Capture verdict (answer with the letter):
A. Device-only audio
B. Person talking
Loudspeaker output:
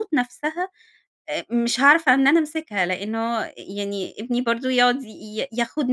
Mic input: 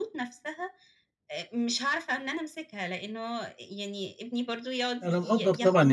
B